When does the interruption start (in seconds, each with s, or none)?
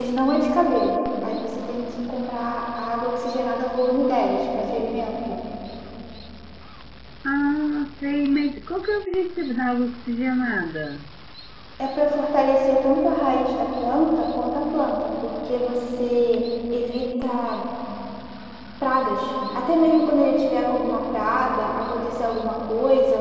none